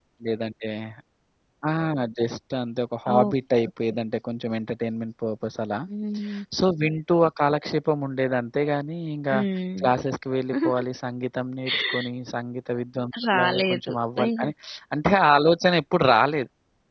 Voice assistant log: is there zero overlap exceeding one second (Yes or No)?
No